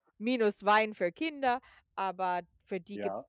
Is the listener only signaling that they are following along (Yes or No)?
No